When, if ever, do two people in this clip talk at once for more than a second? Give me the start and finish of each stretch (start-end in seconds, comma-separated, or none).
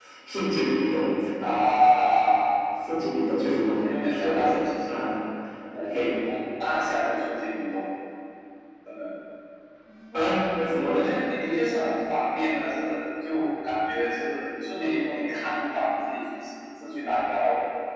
3.5-5.0